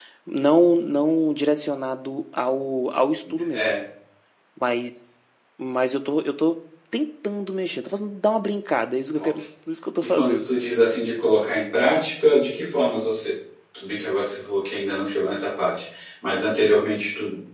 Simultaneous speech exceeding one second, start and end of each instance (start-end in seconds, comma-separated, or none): none